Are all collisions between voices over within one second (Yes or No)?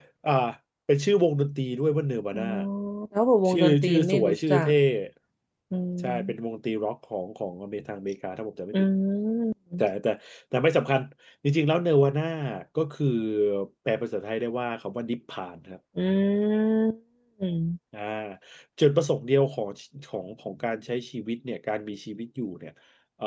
No